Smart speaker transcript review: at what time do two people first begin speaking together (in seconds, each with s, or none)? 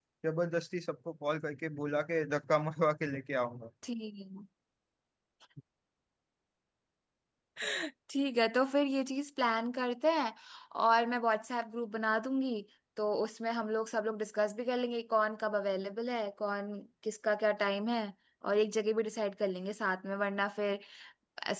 none